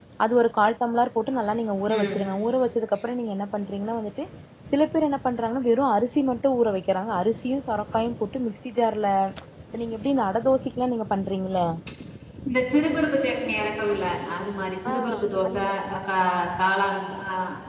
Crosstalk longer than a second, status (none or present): none